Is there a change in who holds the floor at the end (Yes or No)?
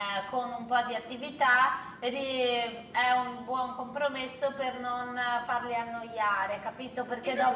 Yes